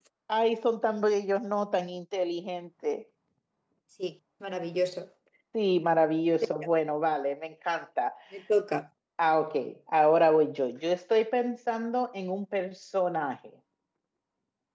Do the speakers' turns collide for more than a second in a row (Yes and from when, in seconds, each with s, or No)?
No